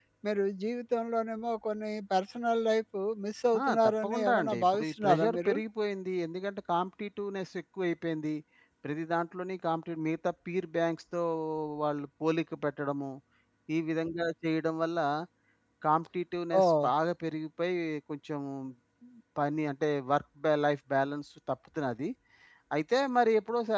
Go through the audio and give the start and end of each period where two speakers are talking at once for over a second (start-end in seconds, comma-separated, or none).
3.6-5.6